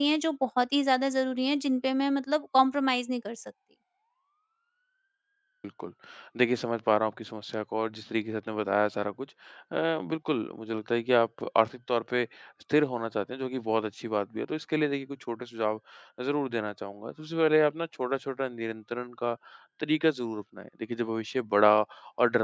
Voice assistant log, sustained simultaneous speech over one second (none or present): none